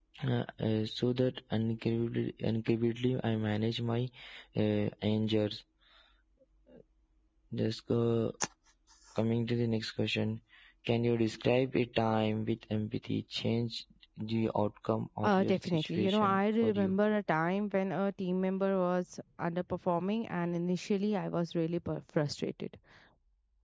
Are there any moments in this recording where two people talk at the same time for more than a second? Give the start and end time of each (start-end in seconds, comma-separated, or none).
15.2-16.9